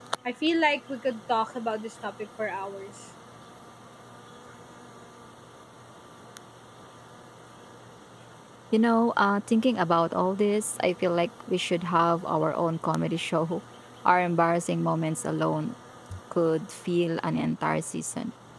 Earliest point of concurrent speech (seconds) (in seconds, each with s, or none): none